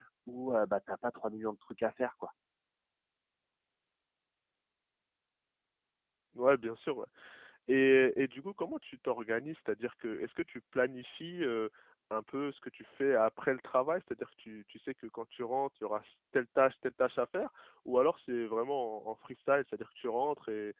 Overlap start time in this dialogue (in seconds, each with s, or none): none